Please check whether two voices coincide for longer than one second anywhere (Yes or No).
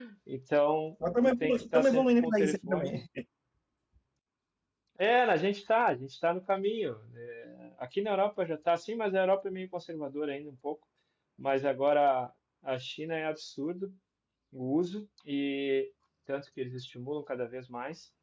Yes